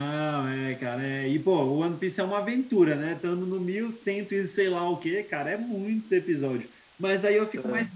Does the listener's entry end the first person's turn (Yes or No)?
No